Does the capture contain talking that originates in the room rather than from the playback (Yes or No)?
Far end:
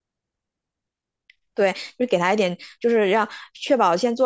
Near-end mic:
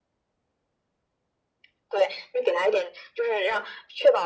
No